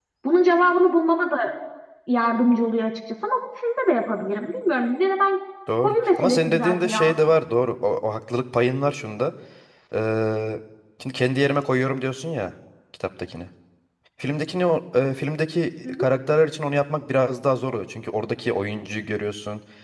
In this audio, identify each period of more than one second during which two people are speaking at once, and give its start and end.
5.8-7.2

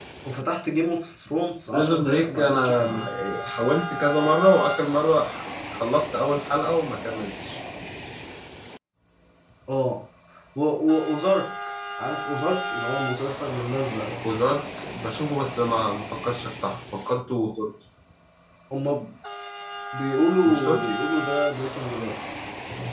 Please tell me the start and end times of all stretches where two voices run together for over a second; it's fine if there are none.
1.7-3.1

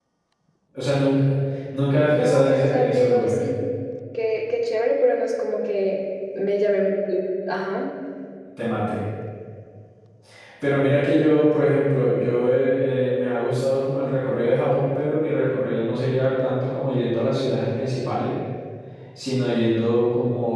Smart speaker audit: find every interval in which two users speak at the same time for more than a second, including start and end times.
2.1-3.5

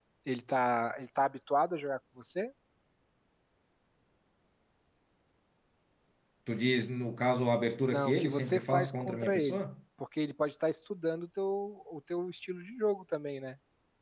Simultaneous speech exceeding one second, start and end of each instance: 7.8-9.6

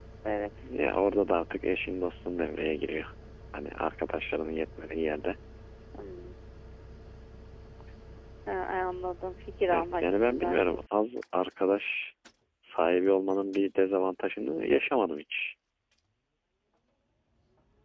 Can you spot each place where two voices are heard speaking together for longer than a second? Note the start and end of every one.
9.7-11.0

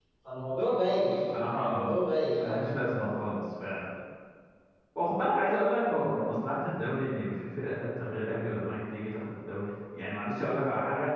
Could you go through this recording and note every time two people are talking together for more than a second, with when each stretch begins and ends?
none

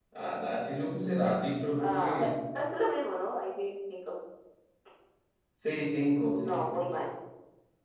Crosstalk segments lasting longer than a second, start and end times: none

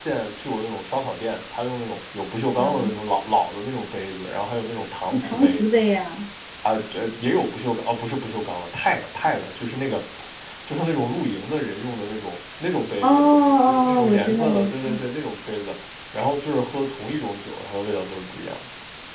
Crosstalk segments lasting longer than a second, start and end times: 13.0-15.0

